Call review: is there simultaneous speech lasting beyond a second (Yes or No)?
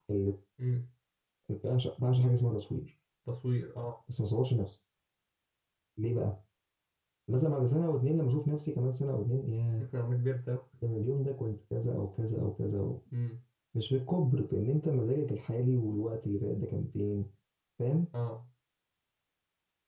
No